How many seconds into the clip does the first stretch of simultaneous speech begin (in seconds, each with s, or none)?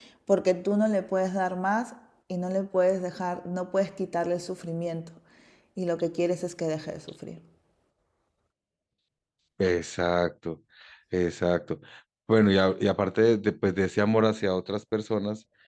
none